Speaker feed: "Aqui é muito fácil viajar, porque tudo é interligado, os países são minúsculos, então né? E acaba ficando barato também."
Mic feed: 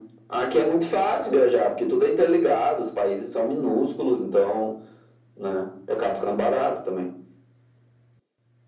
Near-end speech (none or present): none